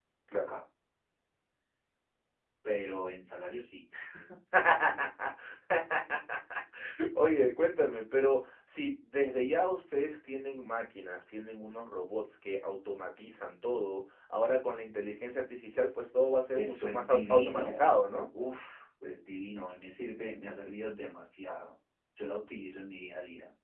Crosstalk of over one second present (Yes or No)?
Yes